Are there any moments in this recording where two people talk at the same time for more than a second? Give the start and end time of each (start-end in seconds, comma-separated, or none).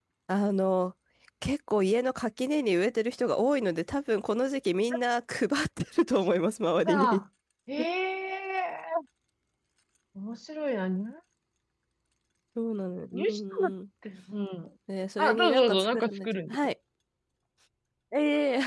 15.2-16.6